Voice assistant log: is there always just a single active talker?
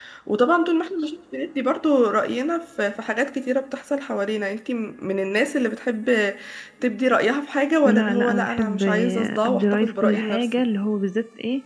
No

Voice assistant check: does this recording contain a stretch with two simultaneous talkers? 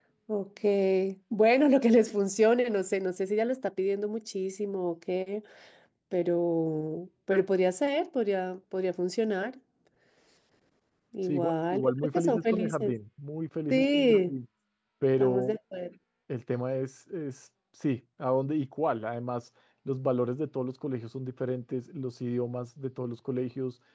Yes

